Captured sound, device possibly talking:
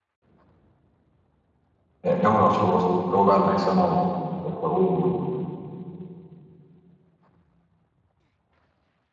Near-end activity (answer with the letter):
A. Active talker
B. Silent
A